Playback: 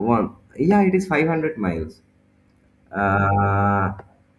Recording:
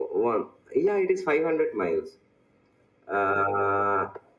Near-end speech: none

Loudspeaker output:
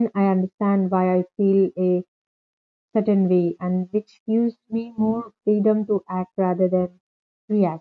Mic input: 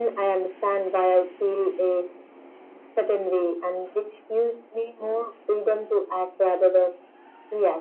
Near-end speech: none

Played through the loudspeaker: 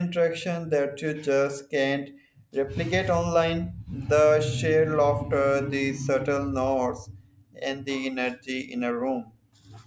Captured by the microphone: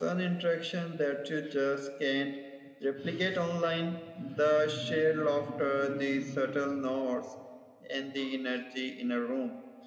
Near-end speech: none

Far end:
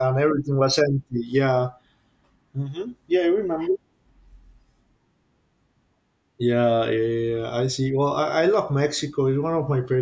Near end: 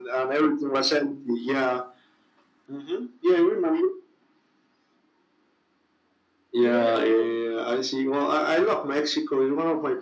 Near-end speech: present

